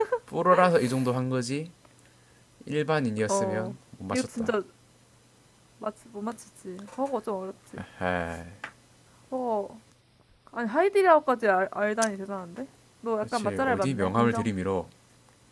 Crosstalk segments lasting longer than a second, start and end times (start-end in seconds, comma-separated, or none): 13.2-14.5